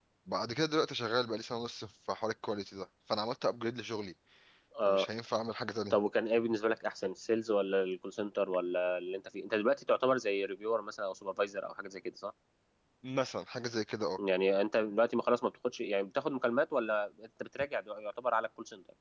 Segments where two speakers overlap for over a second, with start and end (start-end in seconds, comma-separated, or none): none